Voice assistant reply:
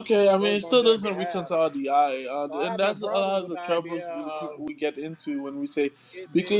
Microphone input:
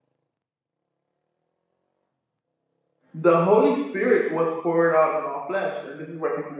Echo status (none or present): none